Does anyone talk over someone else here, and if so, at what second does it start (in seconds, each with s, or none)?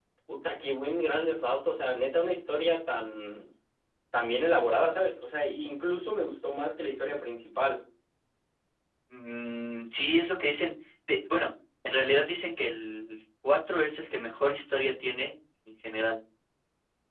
none